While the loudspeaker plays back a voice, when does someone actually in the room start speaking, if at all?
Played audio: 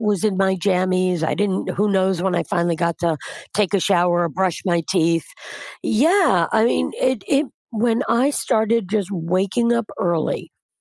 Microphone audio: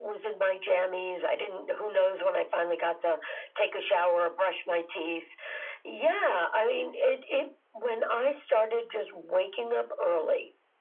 none

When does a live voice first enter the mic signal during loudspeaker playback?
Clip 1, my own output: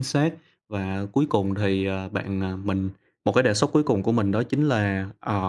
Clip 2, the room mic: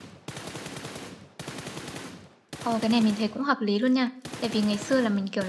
2.6 s

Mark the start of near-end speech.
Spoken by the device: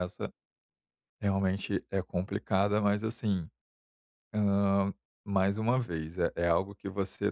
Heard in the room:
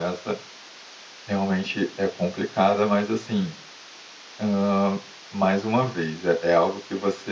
none

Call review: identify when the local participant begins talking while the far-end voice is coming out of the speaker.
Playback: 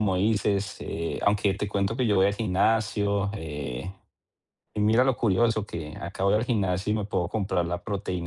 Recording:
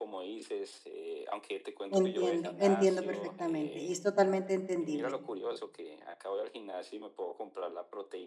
1.9 s

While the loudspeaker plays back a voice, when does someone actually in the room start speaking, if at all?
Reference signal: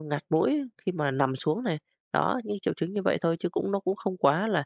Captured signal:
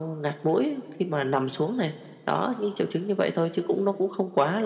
none

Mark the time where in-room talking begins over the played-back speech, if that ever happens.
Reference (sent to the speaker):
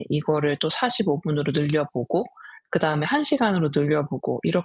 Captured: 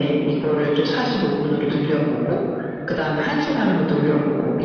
none

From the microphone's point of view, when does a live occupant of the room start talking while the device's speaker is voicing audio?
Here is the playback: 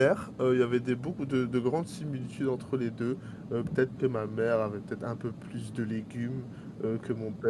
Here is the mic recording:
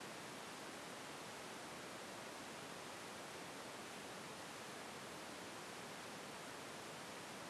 none

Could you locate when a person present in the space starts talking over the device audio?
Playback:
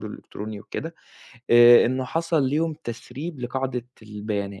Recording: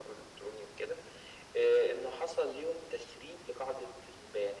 none

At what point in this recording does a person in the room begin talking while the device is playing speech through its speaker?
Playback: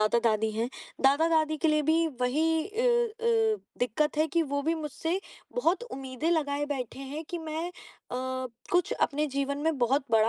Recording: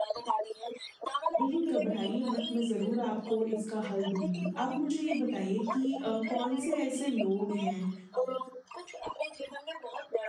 1.4 s

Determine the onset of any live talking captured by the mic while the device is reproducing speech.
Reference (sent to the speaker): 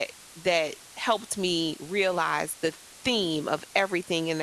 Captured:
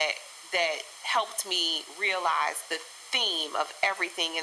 none

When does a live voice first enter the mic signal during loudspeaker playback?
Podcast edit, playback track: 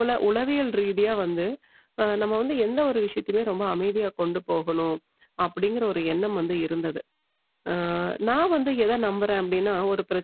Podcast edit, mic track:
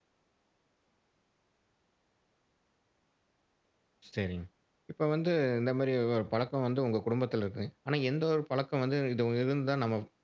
4.1 s

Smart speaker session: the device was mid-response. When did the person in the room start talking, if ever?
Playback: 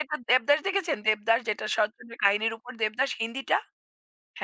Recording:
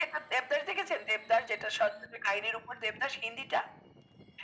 none

